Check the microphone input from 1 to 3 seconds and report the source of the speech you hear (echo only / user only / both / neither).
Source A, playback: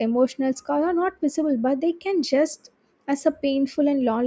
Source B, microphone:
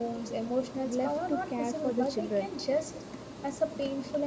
both